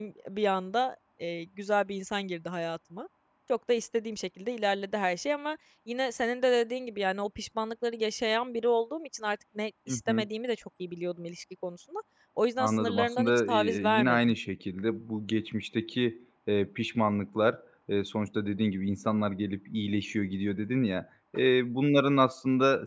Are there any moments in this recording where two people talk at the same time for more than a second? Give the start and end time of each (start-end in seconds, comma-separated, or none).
12.6-14.2